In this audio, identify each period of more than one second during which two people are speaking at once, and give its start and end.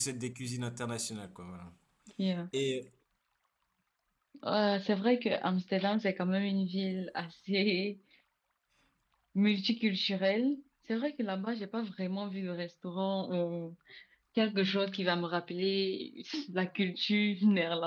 none

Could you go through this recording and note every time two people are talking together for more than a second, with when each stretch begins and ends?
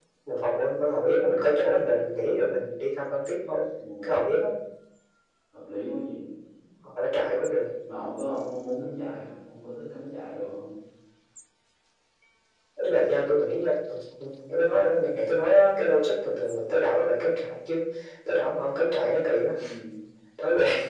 none

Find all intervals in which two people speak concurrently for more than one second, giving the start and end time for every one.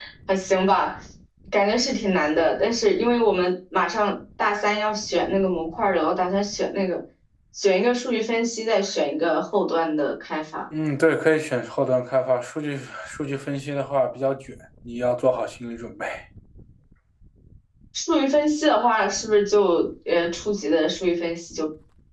none

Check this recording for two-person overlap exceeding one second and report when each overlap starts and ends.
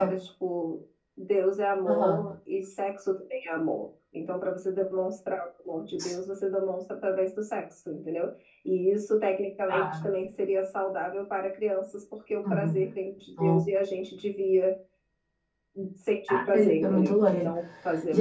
16.3-17.5

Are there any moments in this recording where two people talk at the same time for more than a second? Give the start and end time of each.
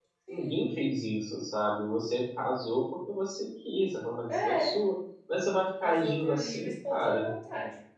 5.8-7.3

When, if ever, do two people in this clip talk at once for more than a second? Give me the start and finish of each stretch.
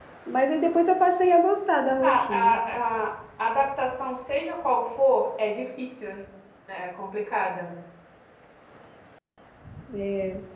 none

